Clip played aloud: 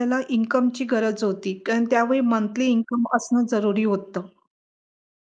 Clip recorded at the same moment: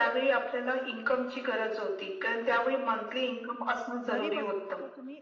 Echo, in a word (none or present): present